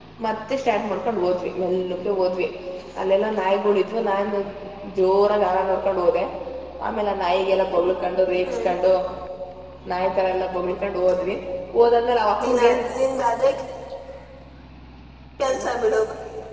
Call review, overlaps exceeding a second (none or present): none